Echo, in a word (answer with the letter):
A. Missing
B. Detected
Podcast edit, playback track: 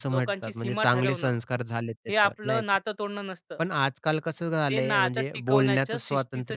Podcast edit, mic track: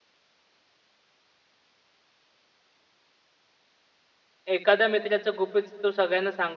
A